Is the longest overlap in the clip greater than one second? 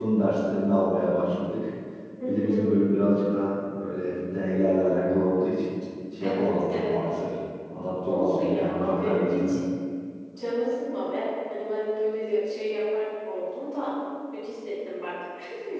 Yes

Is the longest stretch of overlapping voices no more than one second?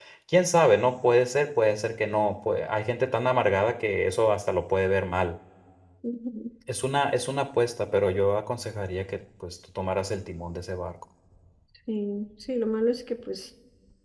Yes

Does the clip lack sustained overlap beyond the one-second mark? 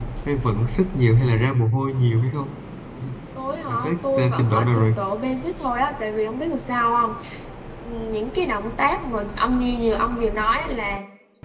No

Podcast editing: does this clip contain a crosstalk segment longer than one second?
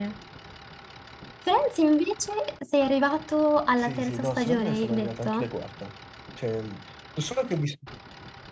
Yes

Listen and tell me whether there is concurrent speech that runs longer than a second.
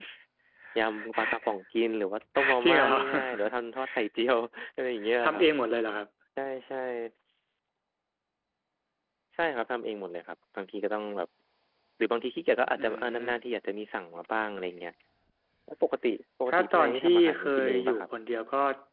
Yes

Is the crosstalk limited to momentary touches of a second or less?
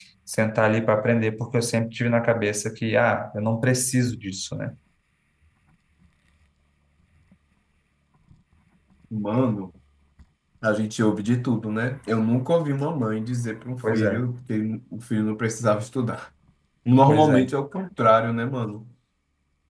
Yes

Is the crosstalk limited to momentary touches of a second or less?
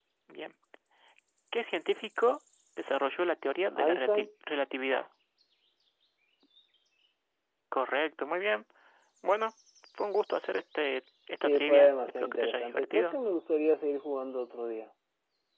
No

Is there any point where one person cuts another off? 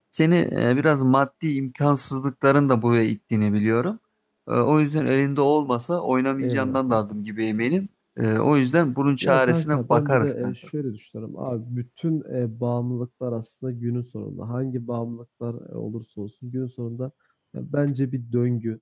Yes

